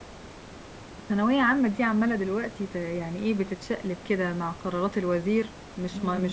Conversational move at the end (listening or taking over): listening